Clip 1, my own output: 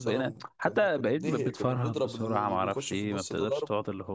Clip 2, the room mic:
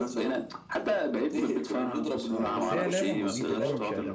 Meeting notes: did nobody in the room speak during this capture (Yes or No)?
No